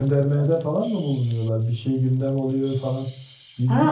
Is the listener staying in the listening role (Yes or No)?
No